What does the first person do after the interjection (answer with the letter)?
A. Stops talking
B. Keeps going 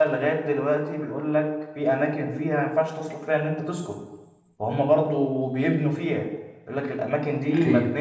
B